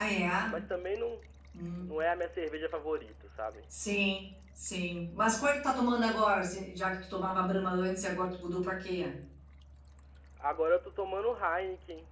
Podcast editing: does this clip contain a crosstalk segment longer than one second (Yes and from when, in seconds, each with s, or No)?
No